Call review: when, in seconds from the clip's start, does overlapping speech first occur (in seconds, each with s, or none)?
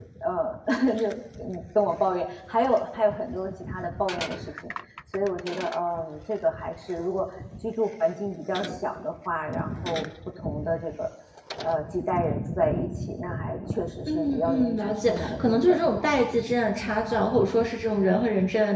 14.1 s